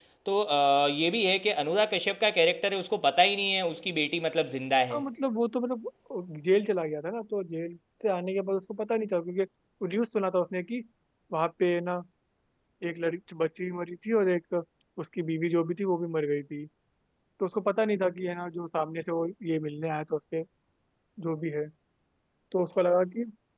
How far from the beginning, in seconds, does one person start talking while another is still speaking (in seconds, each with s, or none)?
none